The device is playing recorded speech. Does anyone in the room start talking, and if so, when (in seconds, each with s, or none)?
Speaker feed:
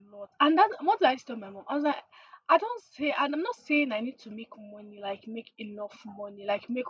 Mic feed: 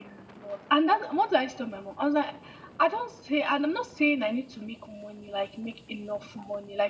none